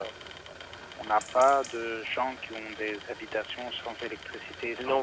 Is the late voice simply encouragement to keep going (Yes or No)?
No